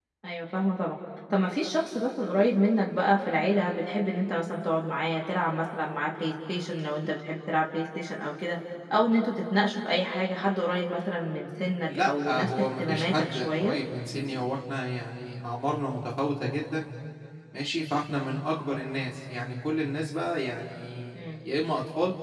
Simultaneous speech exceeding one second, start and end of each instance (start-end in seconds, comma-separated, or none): 11.9-13.8